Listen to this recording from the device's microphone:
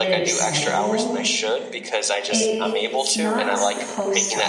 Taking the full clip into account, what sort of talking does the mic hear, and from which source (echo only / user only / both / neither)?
both